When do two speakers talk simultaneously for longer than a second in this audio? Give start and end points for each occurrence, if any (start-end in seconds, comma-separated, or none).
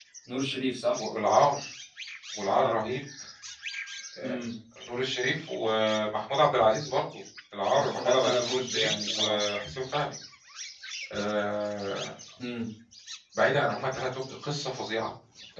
7.7-9.4